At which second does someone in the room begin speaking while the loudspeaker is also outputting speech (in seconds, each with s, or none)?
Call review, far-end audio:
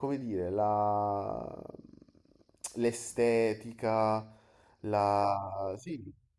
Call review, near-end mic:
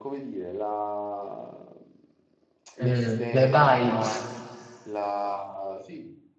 2.8 s